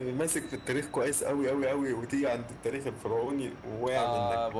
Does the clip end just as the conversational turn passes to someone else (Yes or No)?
Yes